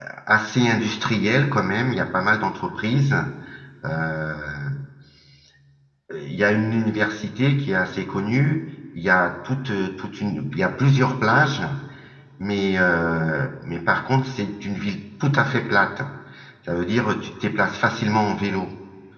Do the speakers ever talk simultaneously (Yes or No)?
No